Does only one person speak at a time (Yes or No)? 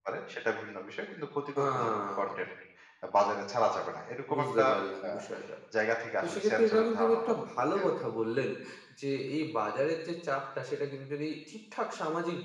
No